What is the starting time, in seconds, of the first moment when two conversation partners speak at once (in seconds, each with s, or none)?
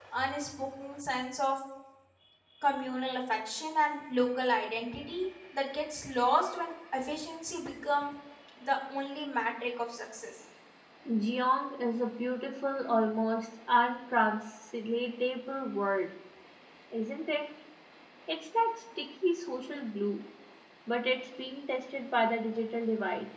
none